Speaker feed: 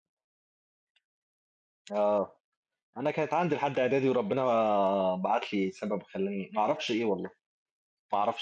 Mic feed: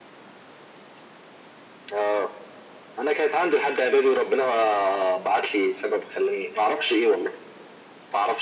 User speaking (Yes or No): No